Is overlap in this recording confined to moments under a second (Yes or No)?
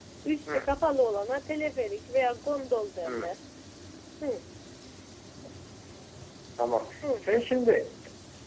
Yes